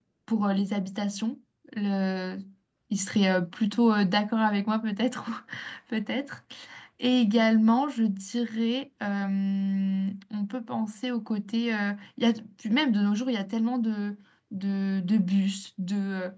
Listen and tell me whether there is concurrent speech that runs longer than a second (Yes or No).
No